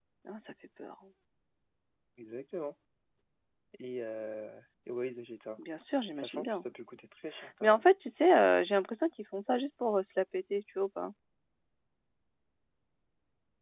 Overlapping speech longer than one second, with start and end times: none

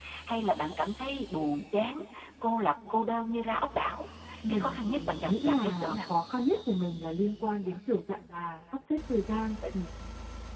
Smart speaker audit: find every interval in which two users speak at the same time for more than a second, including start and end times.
4.5-6.1

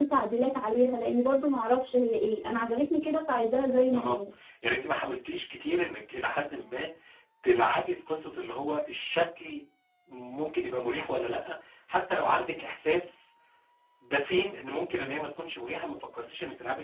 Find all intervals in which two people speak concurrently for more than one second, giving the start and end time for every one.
none

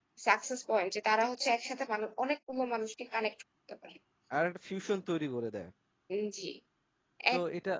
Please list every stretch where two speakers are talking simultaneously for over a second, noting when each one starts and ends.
none

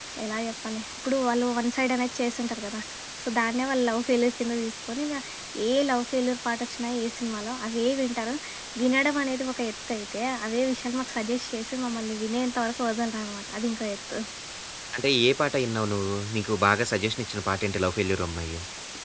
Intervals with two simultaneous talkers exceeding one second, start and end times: none

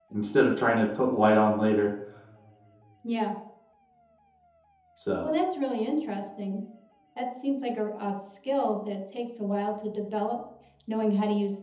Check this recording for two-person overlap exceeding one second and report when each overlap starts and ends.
none

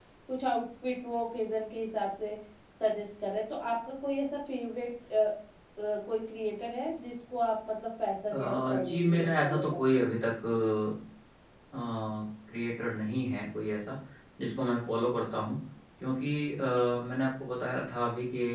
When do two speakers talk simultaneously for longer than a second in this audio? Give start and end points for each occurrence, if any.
8.3-10.0

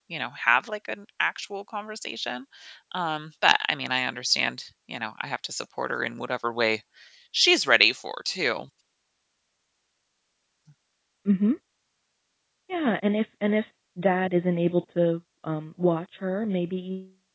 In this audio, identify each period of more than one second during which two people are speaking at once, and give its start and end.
none

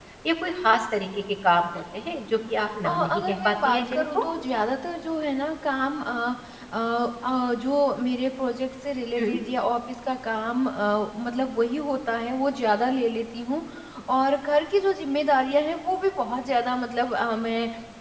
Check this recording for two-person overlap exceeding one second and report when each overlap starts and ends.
2.9-4.2

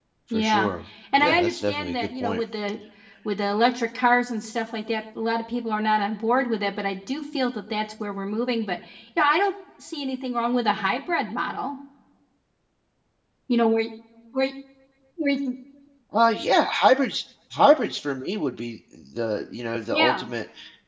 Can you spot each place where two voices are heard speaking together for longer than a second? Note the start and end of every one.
1.1-2.4

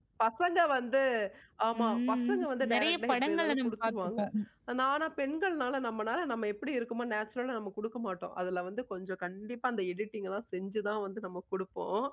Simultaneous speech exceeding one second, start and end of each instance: 1.8-4.2

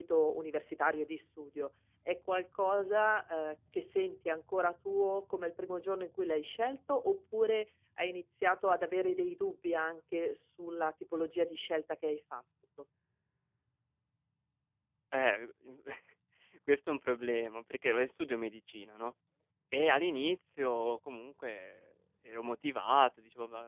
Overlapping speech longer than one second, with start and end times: none

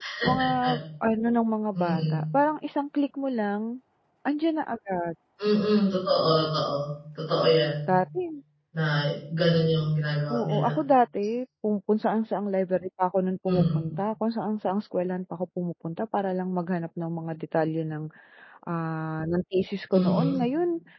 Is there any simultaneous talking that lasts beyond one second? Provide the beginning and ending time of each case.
none

